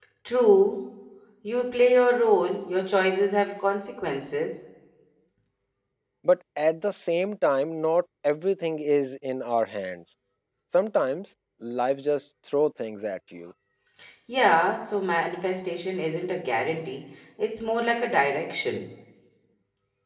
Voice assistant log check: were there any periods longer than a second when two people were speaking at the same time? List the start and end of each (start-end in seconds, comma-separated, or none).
none